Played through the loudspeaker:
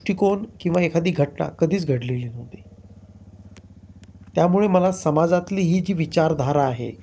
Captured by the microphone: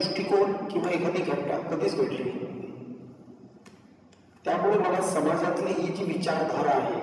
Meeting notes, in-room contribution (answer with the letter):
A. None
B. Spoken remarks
B